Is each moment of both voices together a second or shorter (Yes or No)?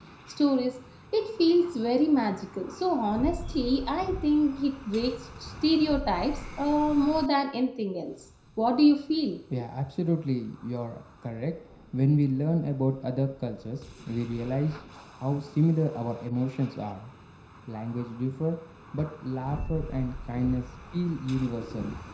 Yes